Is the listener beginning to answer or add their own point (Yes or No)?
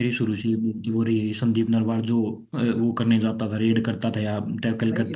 Yes